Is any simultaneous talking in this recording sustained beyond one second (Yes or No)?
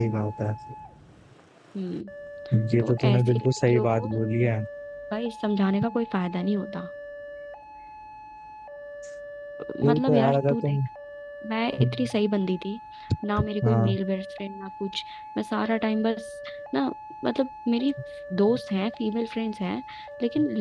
Yes